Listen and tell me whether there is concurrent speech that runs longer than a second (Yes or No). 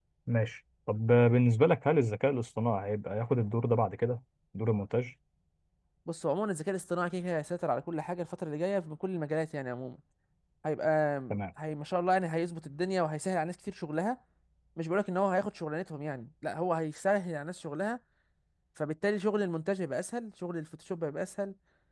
No